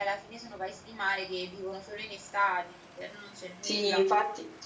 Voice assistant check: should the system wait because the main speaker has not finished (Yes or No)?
No